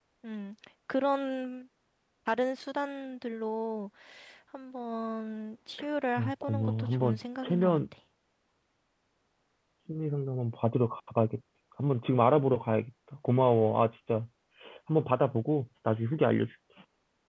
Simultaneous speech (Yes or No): Yes